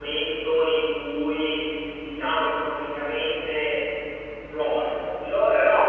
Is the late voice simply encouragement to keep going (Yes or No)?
Yes